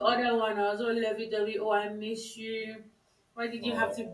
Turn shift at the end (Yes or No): No